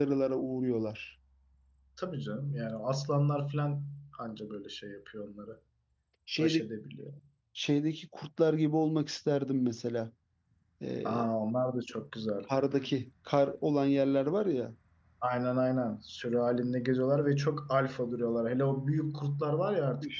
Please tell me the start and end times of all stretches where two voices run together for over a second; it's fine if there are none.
none

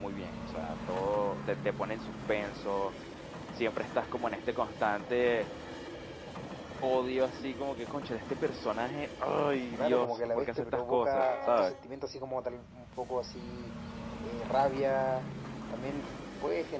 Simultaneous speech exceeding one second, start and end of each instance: 9.8-11.7

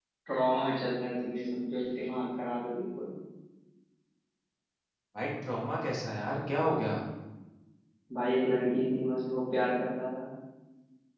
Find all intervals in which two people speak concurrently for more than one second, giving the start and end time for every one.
none

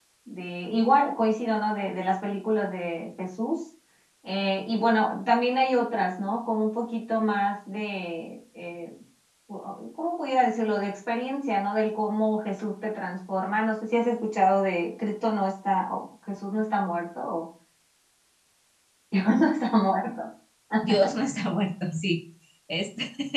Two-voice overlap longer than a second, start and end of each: none

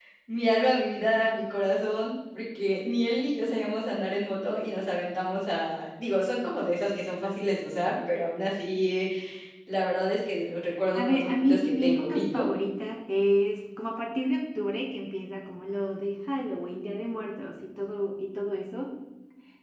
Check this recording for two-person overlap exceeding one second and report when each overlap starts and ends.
10.9-12.5

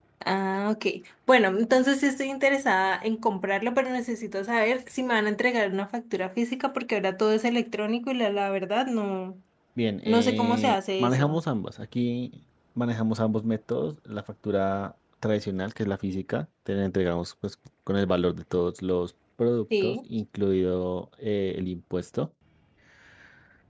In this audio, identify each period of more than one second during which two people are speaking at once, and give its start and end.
10.1-11.4

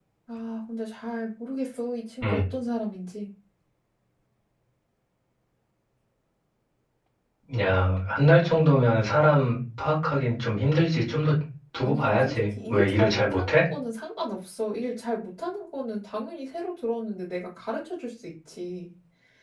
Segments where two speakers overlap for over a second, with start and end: 11.8-13.6

